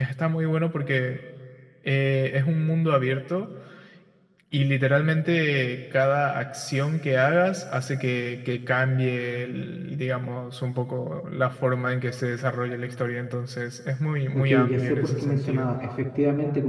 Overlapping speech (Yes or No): Yes